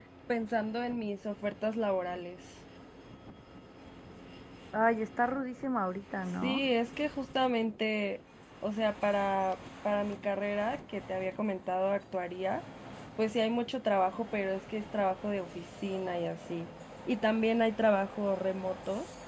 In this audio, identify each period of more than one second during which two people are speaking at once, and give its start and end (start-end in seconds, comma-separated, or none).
none